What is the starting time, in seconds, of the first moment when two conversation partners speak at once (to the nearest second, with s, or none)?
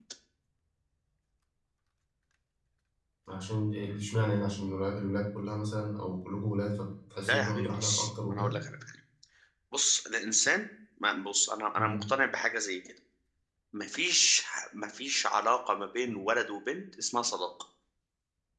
7 s